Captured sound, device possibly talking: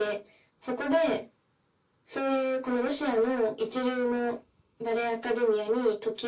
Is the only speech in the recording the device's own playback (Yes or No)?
Yes